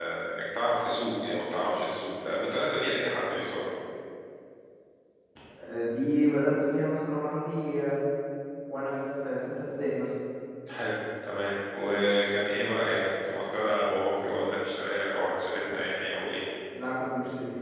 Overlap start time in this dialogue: none

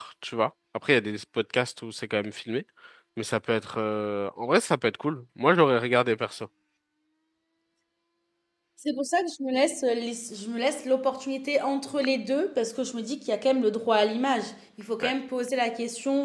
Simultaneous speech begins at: none

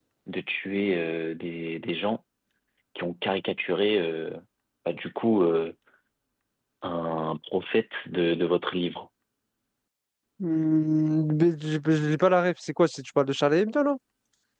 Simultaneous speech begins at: none

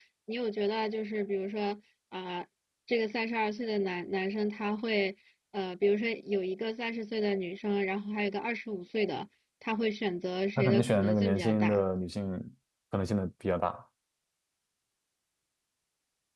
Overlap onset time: 10.6 s

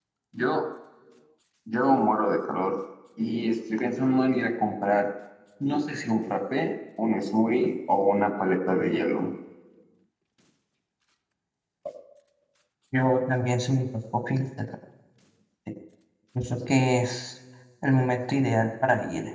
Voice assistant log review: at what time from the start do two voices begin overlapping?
none

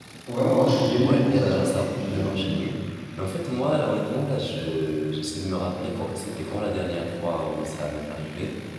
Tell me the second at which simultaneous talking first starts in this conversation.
1.0 s

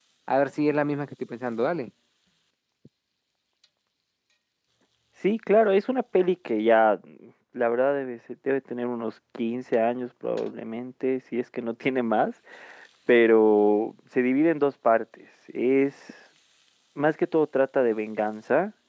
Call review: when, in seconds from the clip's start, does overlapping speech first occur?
none

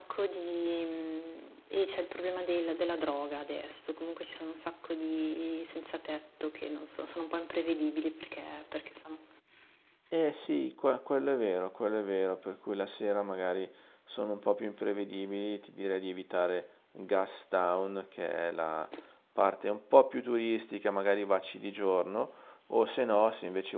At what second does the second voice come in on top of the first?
none

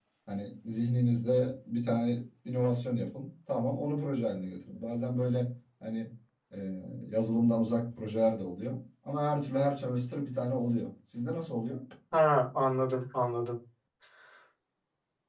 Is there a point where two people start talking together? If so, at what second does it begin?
none

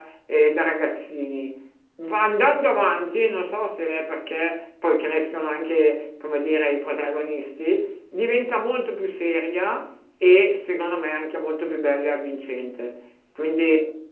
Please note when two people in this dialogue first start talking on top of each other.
none

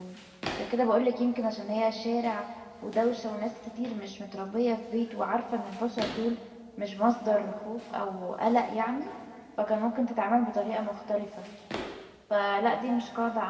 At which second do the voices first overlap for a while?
none

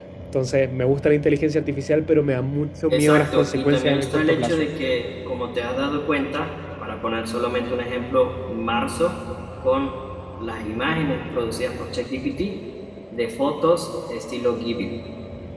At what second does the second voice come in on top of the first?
2.9 s

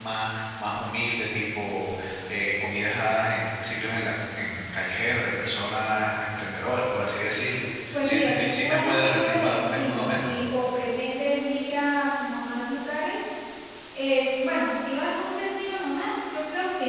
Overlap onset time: 7.9 s

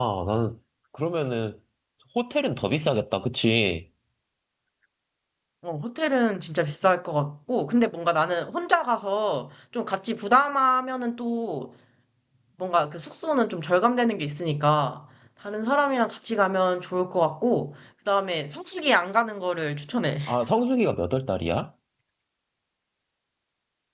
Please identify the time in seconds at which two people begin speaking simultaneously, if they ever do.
none

